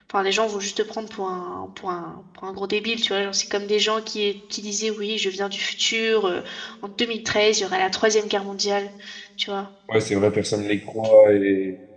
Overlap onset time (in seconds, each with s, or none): none